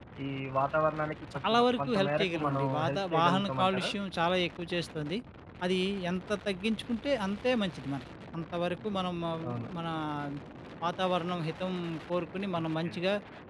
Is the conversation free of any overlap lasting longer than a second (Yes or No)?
No